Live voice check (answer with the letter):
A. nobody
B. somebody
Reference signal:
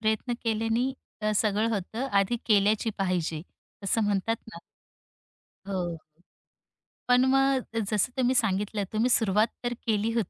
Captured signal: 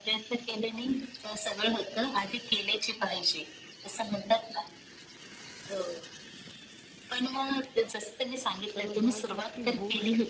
B